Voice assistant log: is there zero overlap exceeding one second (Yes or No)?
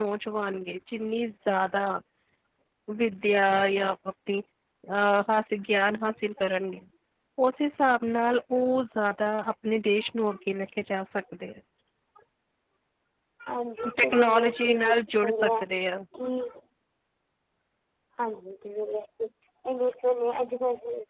No